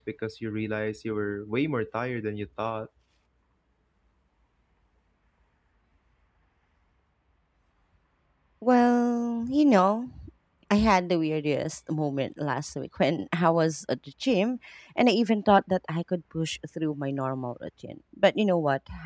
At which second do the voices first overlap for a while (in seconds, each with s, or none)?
none